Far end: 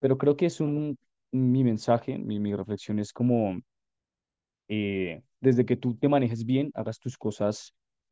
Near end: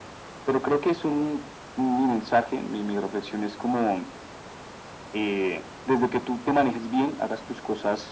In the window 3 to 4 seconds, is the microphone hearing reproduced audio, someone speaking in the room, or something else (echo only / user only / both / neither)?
echo only